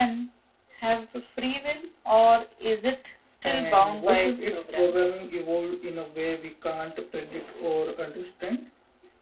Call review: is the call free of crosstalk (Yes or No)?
No